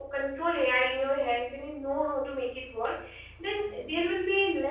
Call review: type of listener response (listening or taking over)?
listening